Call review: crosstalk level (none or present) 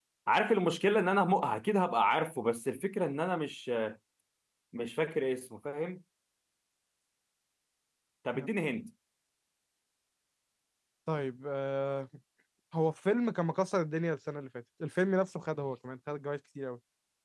none